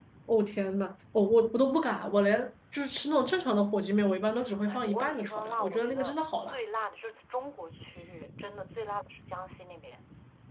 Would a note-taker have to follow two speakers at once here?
Yes, from 4.5 s

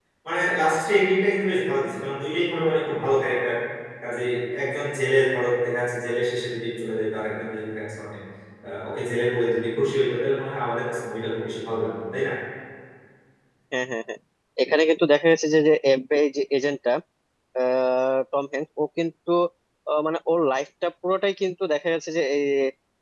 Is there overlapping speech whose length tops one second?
No

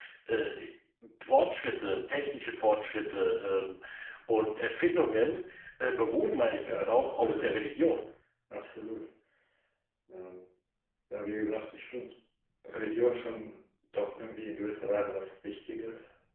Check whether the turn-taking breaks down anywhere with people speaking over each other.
Yes, from 6.2 s

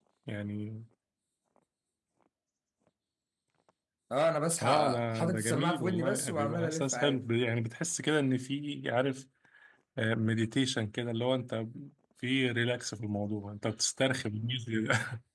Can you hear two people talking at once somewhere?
Yes, from 4.6 s

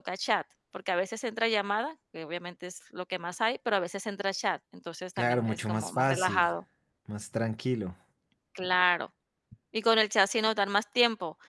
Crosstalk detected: Yes, from 5.2 s

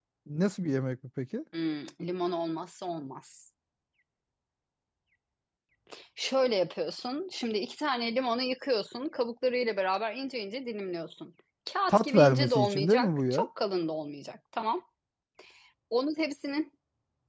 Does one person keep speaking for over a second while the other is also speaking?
Yes, from 11.9 s

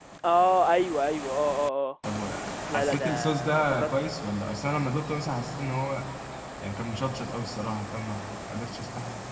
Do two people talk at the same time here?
Yes, from 2.7 s

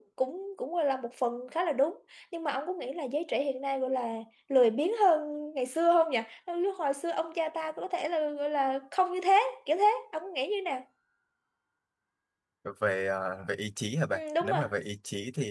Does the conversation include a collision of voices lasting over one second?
No

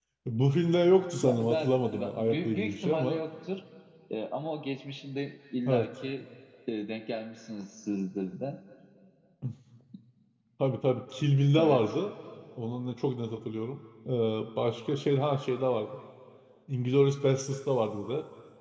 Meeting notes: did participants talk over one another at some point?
Yes, from 1.2 s

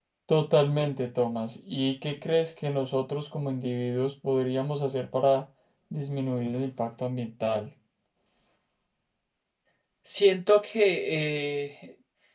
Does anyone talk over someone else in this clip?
No

